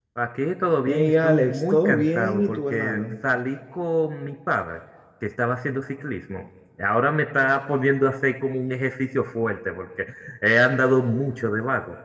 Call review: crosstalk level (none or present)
present